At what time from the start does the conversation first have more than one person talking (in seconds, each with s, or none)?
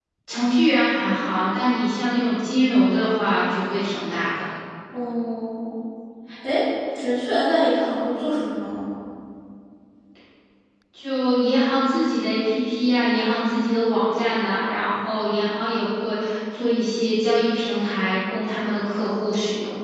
none